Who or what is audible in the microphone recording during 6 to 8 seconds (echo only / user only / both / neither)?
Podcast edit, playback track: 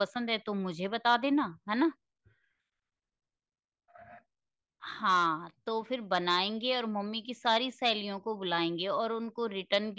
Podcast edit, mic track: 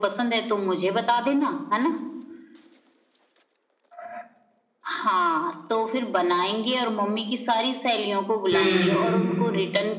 echo only